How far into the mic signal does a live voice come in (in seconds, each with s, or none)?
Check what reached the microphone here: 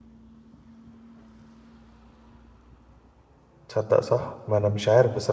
3.7 s